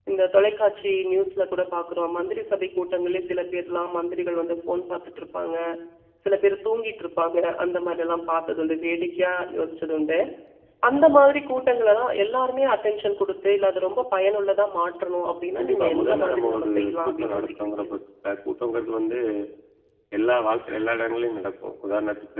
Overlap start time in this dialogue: 15.6 s

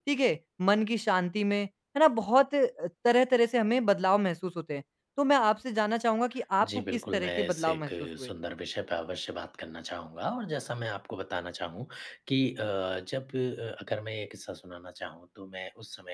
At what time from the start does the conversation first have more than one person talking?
6.6 s

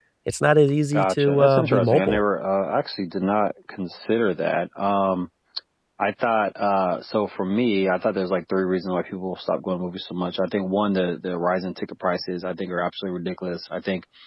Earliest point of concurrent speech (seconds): 0.9 s

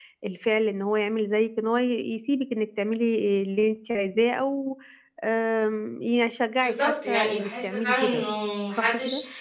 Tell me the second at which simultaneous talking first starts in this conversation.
6.6 s

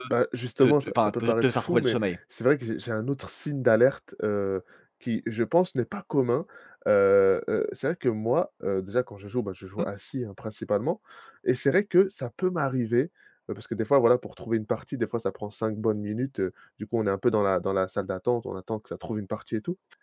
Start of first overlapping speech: 0.6 s

